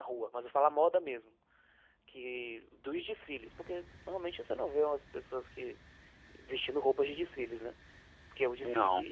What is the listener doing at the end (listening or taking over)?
listening